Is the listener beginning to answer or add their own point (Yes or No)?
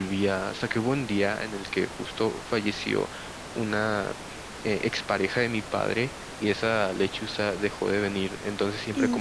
No